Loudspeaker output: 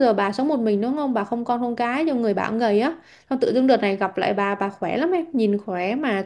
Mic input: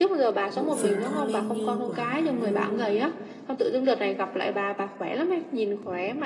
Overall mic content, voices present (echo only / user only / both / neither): both